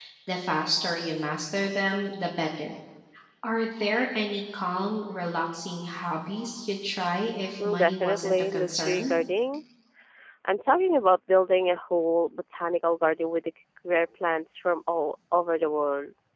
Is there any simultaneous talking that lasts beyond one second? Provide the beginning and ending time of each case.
7.7-9.1

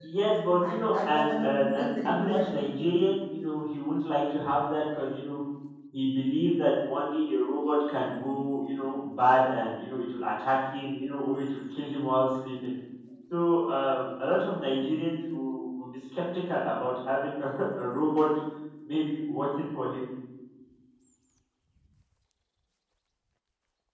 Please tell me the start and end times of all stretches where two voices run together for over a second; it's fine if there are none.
0.6-2.5

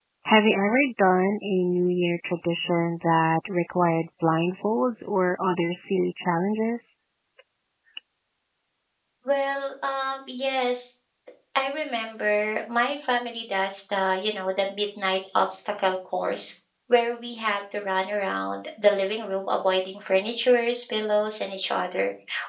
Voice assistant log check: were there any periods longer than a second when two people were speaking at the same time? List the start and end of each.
none

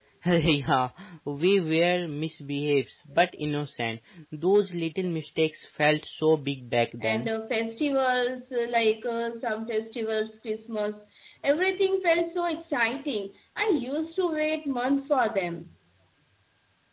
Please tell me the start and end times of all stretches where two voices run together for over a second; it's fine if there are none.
none

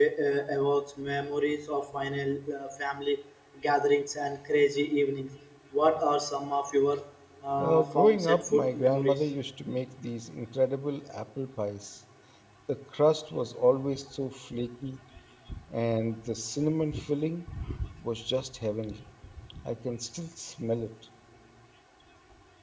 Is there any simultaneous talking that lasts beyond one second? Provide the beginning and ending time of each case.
7.6-9.2

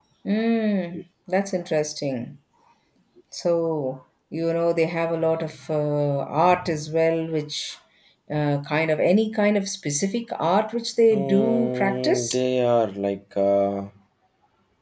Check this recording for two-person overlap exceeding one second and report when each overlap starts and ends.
11.1-12.4

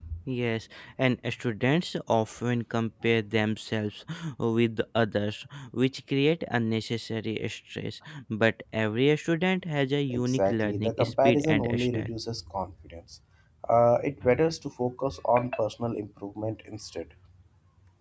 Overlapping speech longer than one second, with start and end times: 10.1-12.1

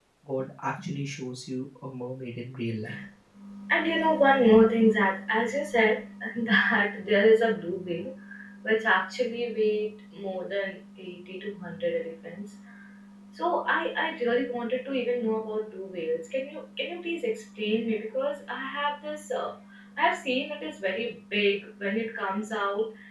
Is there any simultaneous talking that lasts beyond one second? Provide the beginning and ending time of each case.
none

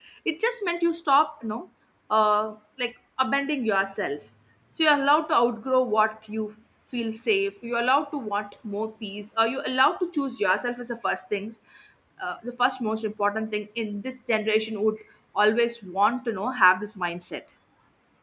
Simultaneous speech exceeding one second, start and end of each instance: none

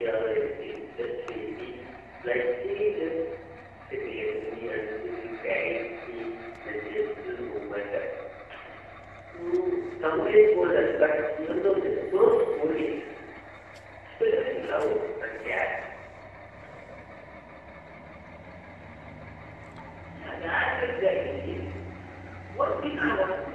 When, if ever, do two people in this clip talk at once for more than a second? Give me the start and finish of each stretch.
none

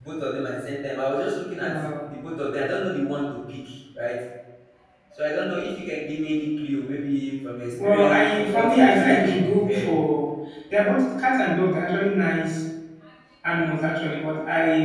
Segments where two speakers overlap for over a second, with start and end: 7.8-9.9

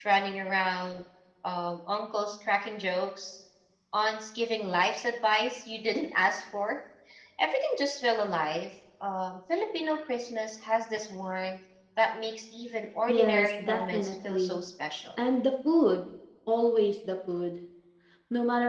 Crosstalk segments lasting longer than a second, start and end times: 13.1-14.6

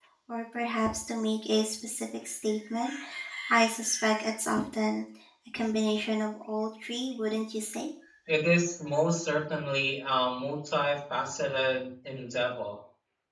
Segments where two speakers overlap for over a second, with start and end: none

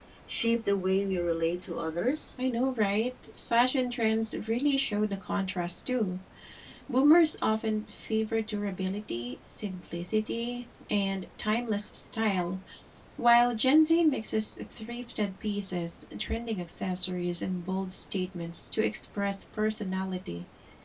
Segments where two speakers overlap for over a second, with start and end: none

